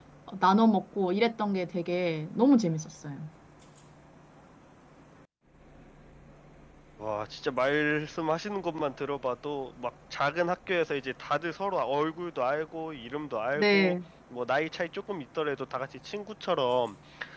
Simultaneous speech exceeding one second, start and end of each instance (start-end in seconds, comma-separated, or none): none